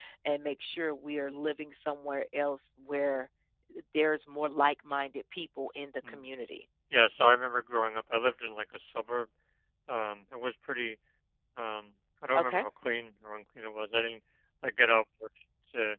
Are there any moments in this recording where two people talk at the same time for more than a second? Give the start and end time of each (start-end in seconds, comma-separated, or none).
none